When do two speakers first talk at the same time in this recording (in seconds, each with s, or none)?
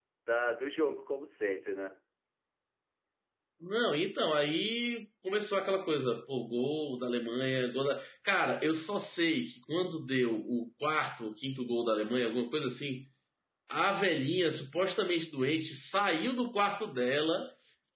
none